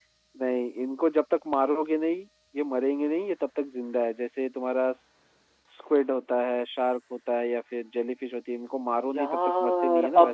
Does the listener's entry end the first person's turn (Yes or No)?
Yes